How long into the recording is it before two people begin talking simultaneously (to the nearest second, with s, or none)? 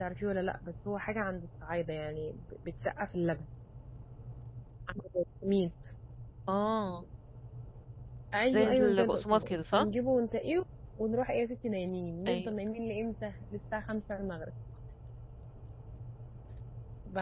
8 s